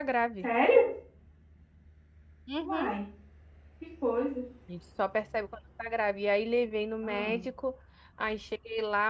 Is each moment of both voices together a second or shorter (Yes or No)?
Yes